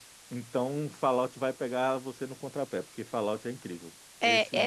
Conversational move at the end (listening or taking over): taking over